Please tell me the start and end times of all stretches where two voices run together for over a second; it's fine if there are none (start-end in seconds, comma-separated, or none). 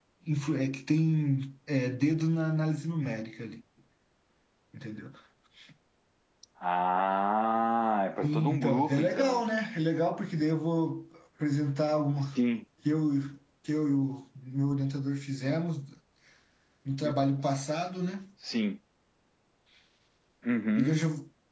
8.2-9.4